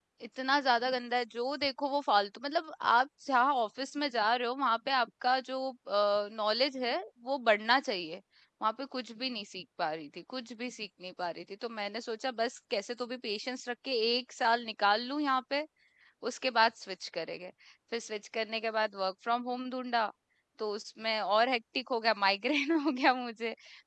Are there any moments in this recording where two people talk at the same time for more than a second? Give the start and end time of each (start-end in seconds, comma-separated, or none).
none